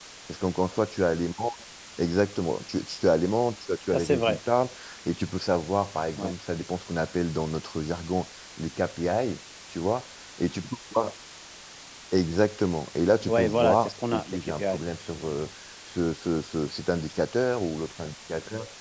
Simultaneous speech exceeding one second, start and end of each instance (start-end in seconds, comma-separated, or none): 13.2-14.8